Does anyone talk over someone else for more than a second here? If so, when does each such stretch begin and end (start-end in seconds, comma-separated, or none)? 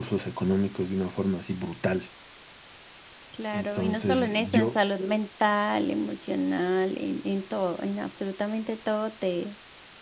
3.5-4.8